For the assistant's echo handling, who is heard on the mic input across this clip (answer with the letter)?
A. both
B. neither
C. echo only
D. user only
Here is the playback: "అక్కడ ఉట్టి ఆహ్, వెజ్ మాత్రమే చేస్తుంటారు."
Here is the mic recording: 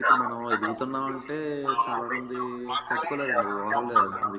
A